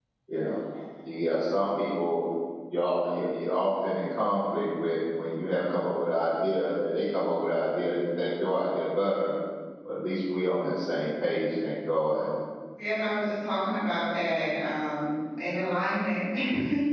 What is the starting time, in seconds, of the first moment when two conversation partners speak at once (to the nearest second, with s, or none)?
none